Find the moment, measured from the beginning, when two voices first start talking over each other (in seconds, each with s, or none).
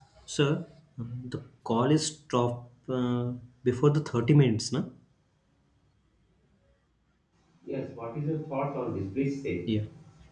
none